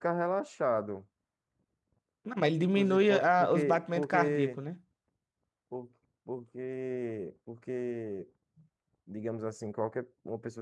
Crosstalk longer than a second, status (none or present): present